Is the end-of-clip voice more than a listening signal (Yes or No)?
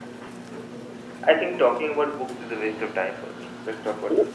Yes